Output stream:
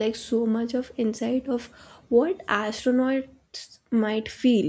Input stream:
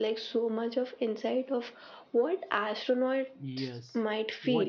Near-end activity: present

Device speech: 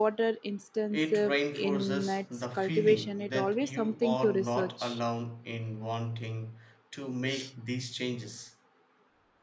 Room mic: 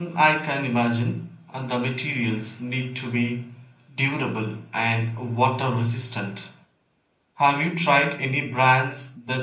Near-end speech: present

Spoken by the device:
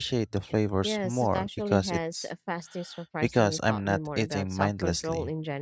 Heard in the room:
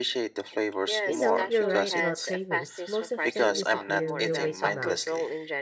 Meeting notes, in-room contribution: present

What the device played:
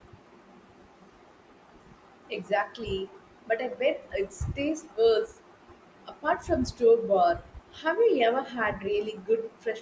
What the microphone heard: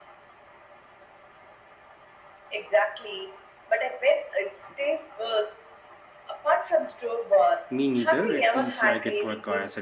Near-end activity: present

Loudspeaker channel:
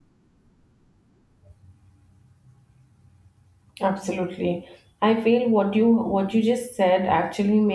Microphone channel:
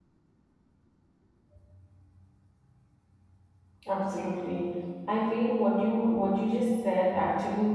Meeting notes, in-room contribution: none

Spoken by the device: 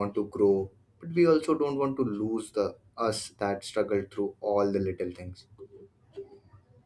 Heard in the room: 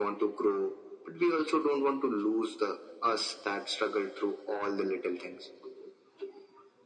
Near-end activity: none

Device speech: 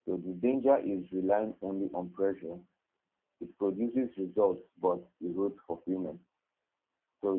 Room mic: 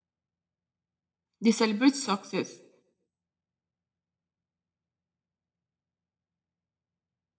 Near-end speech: present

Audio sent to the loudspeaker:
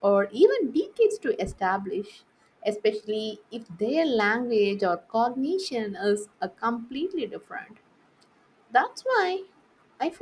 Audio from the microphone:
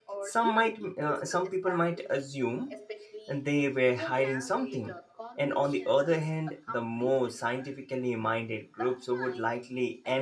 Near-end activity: present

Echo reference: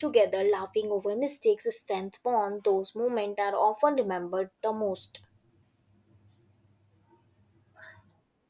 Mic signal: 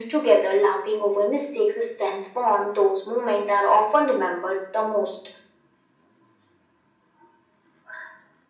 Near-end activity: none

